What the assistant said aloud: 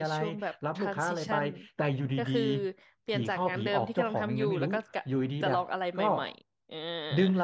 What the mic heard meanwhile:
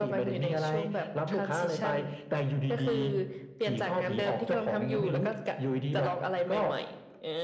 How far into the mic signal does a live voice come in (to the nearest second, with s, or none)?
none